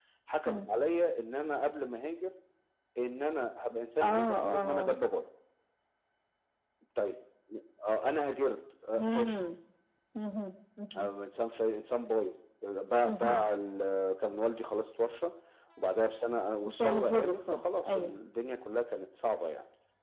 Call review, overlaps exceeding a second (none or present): present